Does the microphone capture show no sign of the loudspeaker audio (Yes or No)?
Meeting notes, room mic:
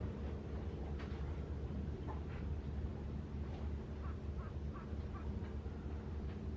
Yes